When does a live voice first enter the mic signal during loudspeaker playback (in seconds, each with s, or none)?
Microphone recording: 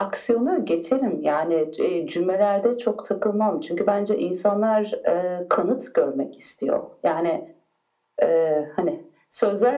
none